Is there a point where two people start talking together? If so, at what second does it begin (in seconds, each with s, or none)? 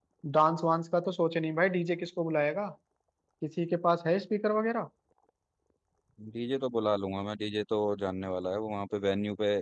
none